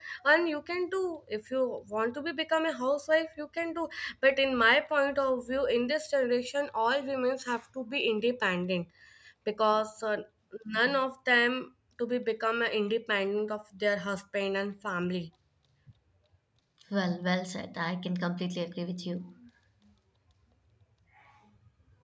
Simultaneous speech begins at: none

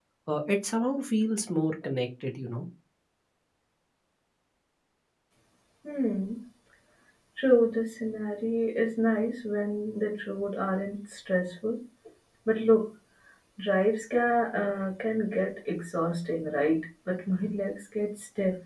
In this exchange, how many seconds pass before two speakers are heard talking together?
none

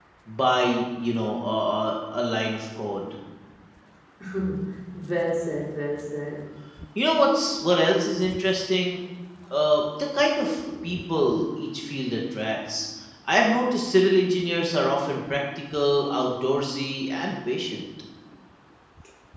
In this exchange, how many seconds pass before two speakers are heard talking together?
none

